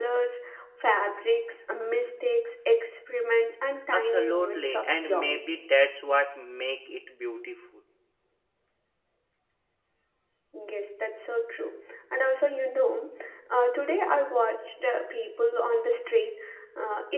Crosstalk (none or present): present